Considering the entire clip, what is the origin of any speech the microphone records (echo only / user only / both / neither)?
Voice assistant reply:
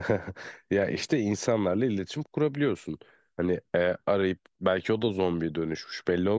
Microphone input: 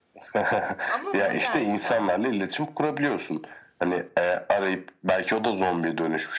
both